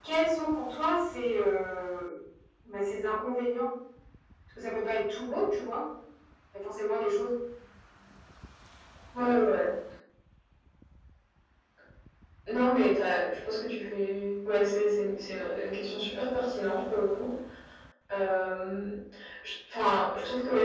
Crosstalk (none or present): none